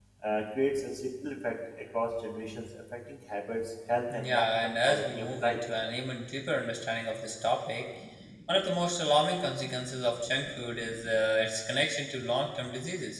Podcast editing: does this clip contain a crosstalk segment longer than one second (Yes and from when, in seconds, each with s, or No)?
Yes, from 4.1 s